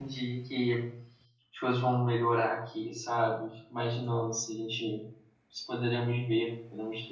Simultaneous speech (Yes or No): No